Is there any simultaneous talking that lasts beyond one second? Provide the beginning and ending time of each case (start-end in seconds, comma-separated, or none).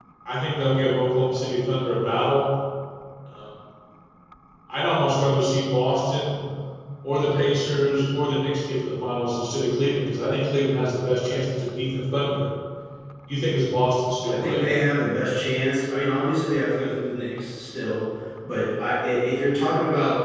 none